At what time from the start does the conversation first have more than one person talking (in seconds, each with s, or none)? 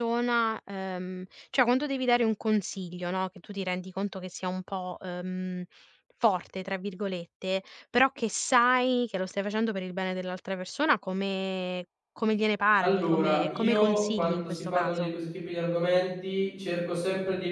12.8 s